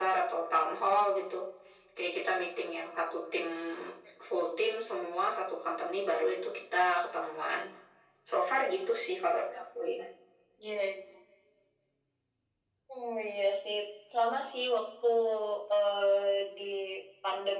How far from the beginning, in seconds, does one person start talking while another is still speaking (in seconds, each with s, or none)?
none